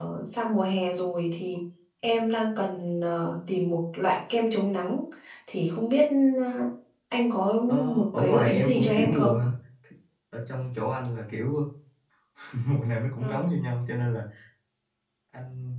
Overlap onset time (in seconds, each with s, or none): 7.9 s